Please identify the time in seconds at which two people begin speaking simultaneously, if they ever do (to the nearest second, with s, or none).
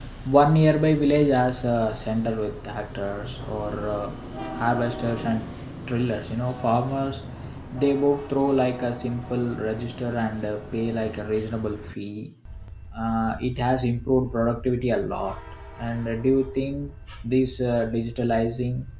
none